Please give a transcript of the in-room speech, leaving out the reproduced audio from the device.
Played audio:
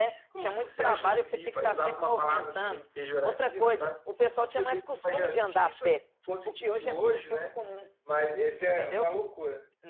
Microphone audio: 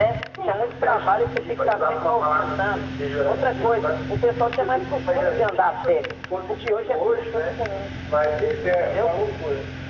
none

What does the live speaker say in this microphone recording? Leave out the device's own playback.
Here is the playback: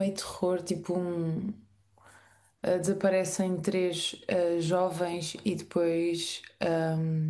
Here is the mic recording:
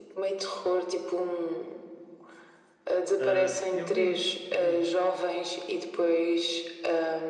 Ah, eu vi, vi.

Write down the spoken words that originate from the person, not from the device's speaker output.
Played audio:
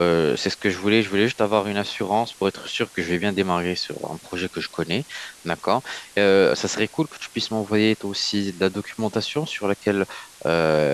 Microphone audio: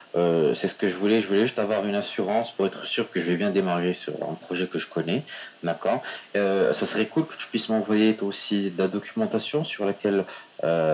none

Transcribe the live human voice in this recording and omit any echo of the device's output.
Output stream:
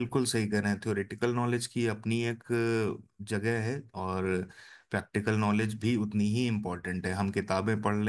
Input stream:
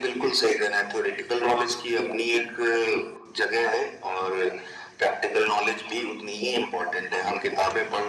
none

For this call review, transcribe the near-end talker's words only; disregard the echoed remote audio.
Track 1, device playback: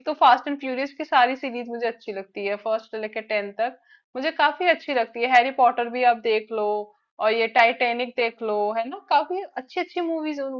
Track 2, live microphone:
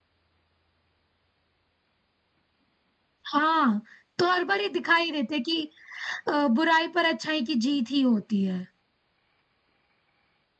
हाँ तो हर बार ये दिखाई देते कि अ, बुराई पर अच्छाई की जीत ही होती है

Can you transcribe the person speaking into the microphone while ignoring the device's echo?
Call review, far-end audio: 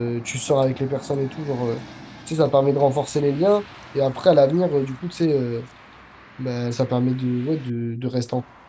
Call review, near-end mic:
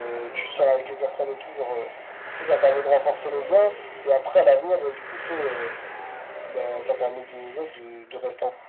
none

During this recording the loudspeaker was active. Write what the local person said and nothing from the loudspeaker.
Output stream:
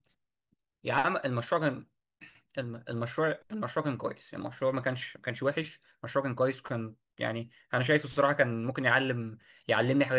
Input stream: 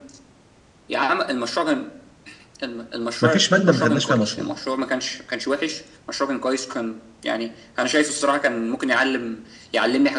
ما فيش ماده ما خدناش فيها مشروع،

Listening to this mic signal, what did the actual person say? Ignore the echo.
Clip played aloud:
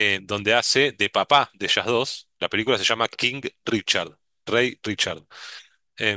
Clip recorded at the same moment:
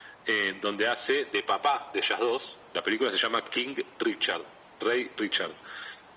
none

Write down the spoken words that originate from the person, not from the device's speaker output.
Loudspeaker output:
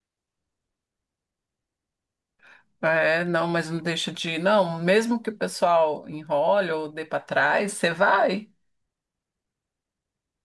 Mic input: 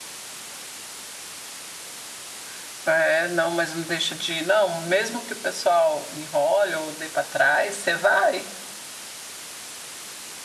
none

